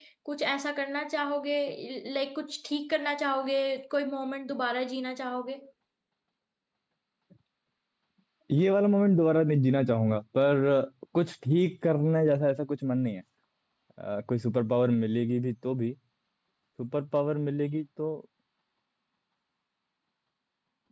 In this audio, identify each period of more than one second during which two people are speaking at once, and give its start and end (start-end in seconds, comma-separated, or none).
none